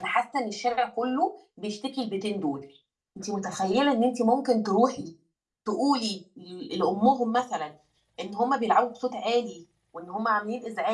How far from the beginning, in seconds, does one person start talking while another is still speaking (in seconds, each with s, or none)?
none